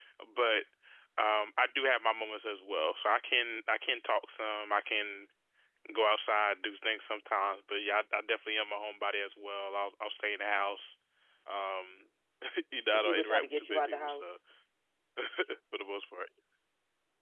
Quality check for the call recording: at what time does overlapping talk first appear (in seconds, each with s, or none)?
12.9 s